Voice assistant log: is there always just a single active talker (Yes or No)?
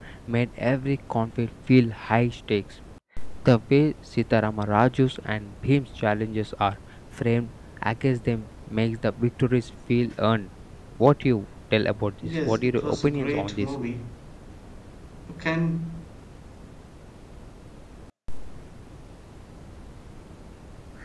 No